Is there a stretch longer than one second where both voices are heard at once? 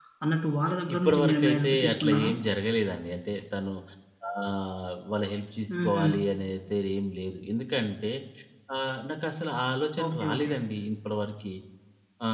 Yes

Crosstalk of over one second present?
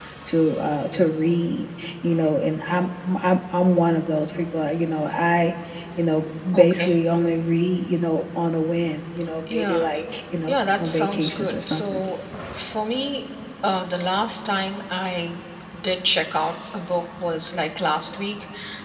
Yes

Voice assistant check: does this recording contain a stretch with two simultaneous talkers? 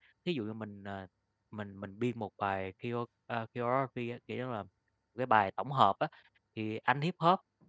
No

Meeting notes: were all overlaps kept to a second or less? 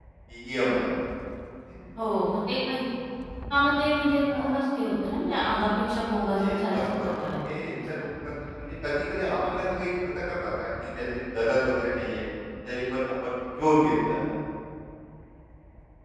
No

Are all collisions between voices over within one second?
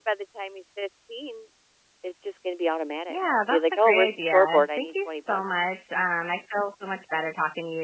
No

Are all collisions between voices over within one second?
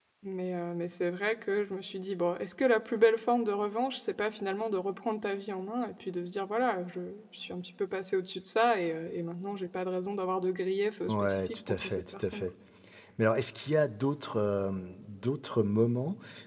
No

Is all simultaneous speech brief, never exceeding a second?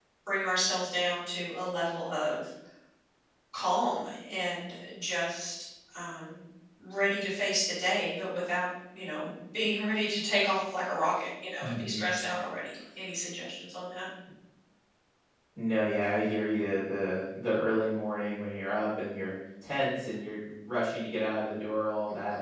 Yes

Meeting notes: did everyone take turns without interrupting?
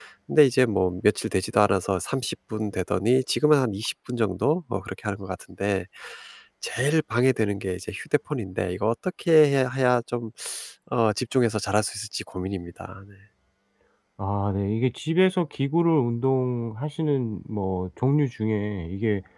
Yes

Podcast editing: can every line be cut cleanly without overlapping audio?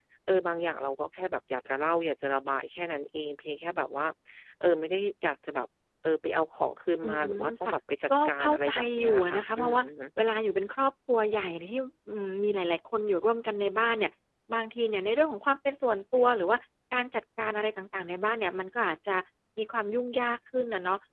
No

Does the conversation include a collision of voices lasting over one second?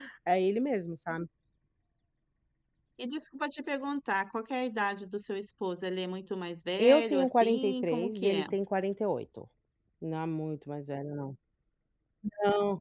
Yes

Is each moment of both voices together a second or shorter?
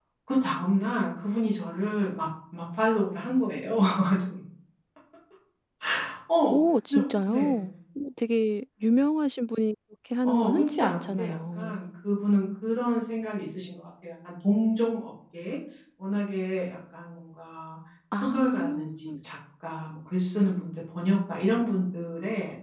No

